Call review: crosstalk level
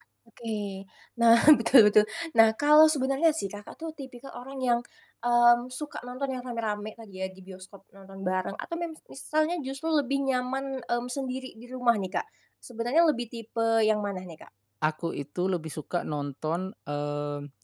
none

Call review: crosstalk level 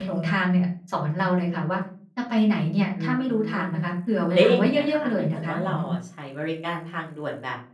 present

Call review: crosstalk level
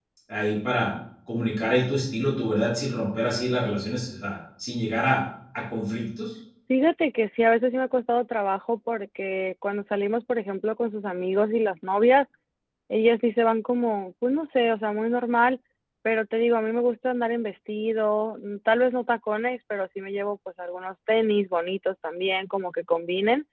none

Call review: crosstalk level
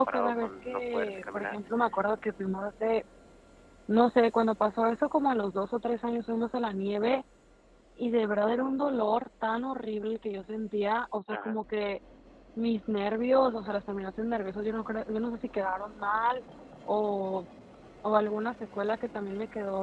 present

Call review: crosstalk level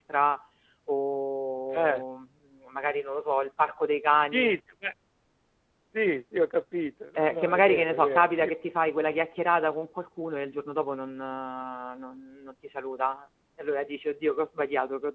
present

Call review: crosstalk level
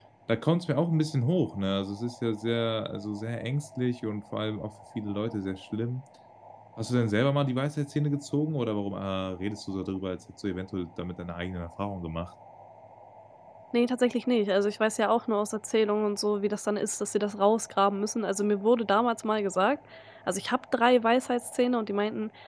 none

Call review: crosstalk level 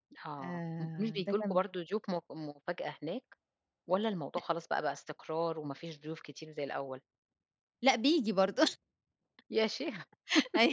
present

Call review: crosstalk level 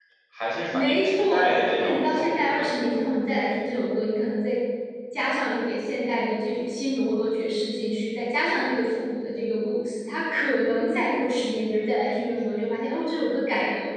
present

